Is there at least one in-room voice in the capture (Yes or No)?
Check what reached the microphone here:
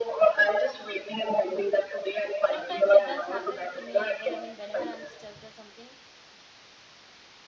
Yes